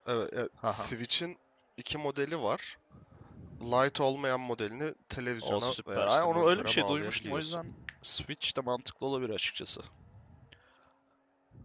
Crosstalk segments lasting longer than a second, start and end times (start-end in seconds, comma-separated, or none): 5.4-7.6